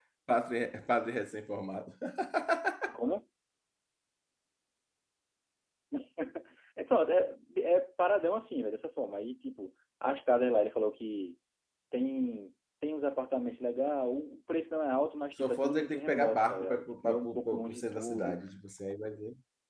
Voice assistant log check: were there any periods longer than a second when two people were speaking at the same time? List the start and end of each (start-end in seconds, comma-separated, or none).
15.4-18.4